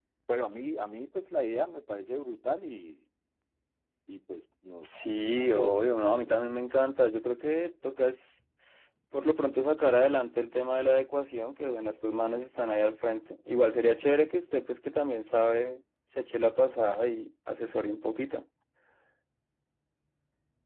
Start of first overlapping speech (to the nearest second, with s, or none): 5 s